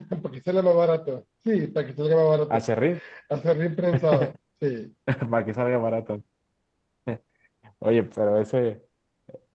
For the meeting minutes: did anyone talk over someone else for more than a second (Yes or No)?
No